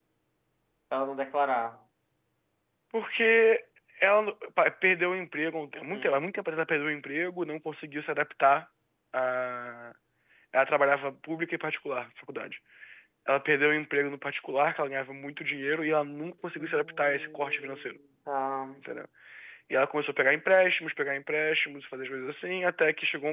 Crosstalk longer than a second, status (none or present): present